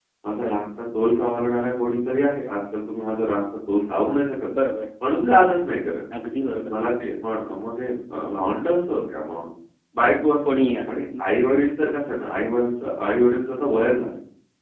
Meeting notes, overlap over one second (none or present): none